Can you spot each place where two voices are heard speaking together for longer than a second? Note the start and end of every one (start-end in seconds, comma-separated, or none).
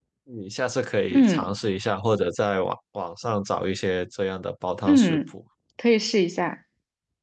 none